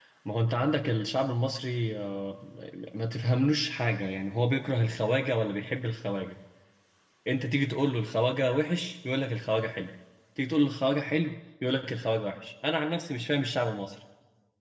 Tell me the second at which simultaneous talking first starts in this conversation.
none

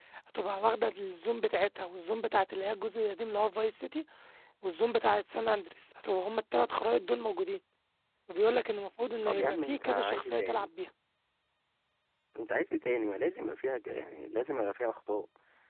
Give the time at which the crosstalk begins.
9.2 s

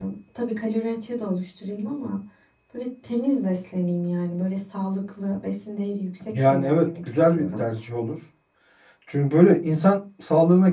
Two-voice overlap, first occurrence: 6.3 s

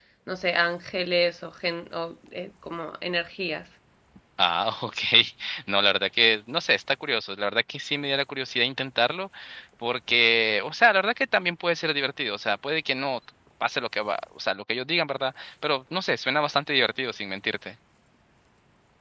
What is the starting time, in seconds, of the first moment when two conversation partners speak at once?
none

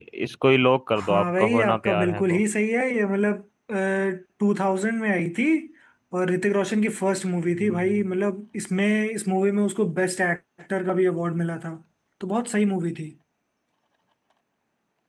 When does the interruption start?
1.0 s

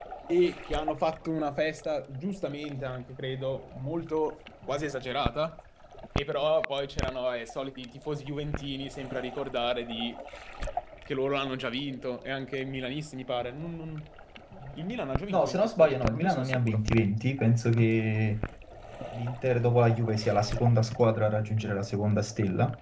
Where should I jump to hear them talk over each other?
15.3 s

